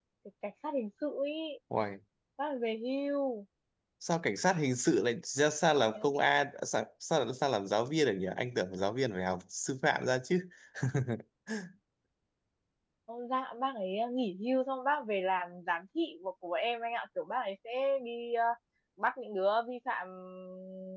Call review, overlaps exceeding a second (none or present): none